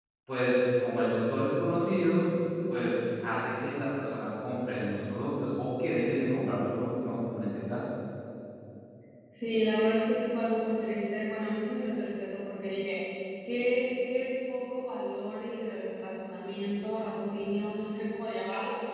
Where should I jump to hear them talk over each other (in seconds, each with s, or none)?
none